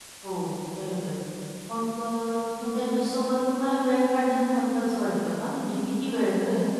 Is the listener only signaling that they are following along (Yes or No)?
No